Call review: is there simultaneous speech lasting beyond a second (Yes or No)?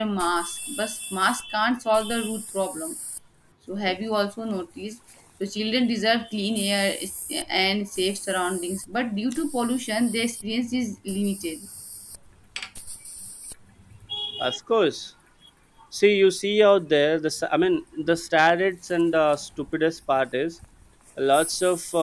No